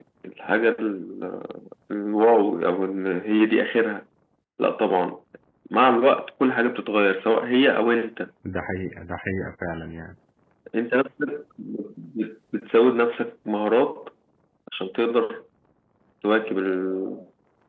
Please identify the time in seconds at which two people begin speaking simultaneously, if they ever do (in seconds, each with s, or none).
none